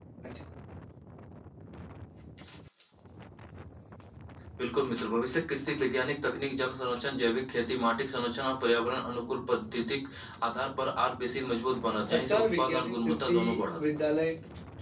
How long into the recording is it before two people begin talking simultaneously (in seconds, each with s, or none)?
12.1 s